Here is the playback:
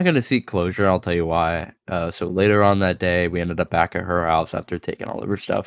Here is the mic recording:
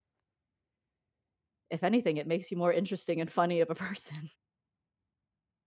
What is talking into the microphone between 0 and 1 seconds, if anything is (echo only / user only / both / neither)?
neither